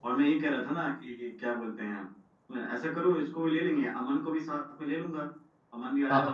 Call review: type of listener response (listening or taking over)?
taking over